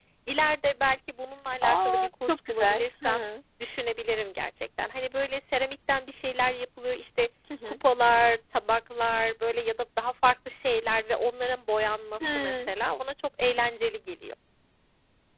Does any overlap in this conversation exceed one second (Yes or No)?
Yes